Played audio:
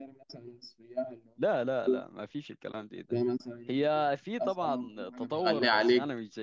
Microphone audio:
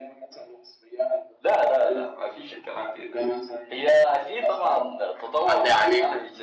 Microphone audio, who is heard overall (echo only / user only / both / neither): echo only